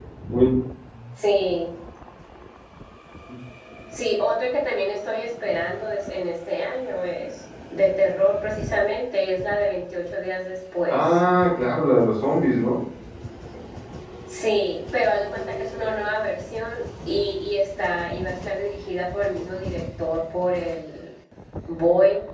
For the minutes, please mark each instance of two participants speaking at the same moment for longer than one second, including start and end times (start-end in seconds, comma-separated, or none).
none